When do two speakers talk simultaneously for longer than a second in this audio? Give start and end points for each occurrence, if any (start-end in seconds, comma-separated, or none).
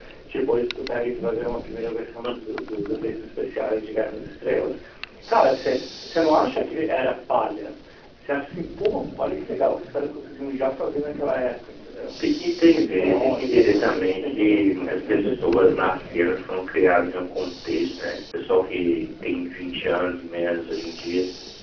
12.8-15.9